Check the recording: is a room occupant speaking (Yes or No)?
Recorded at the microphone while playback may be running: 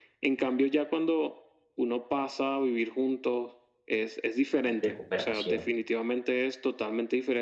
Yes